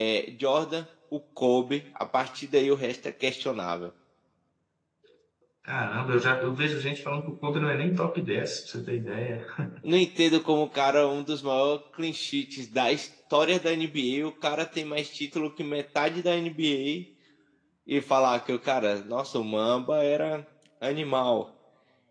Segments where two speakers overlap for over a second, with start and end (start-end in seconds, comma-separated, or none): none